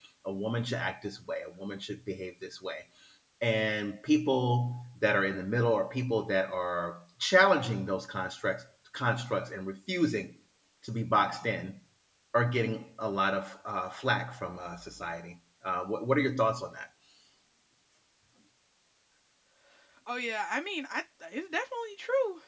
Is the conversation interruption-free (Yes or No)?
Yes